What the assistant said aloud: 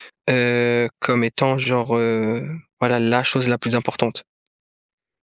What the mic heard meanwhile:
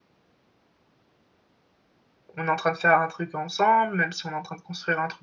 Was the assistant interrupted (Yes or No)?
Yes